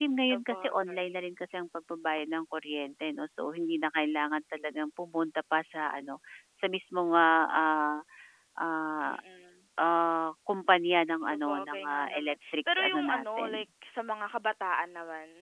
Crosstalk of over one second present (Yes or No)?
Yes